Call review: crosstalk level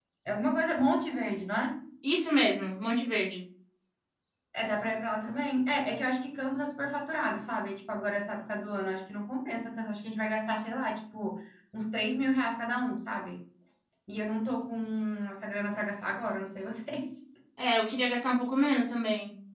none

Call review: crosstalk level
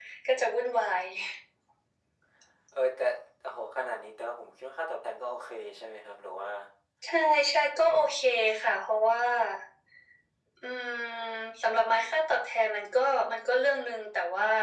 none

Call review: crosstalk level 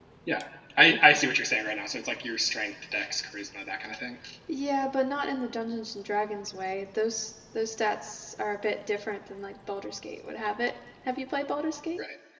none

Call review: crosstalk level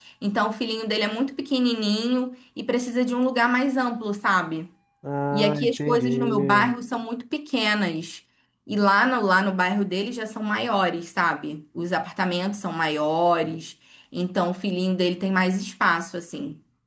present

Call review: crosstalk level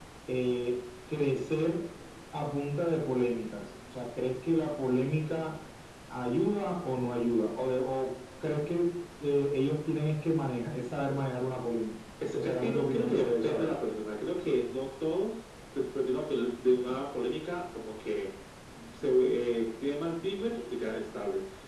present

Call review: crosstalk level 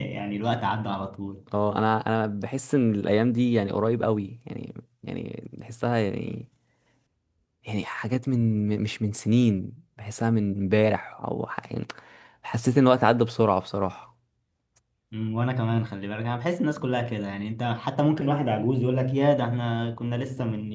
none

